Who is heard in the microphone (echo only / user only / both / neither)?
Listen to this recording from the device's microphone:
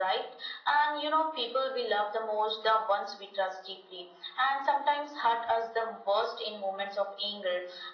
echo only